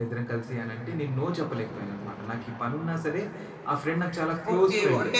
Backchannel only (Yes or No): No